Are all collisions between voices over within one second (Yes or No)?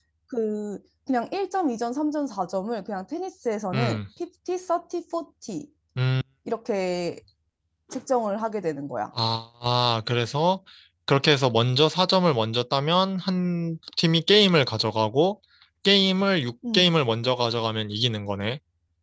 Yes